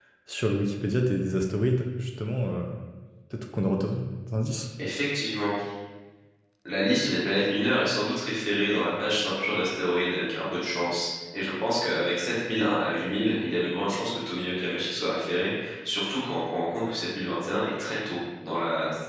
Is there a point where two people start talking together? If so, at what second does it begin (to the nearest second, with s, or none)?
none